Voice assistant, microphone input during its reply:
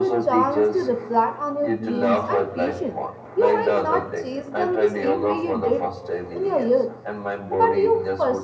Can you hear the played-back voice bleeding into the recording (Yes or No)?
Yes